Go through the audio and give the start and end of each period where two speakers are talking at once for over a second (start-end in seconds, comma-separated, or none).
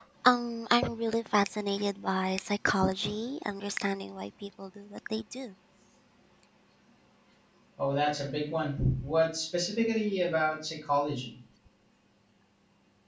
none